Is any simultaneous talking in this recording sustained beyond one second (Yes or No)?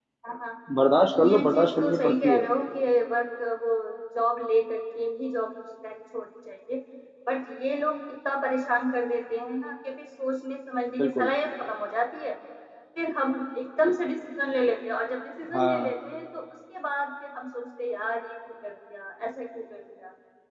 Yes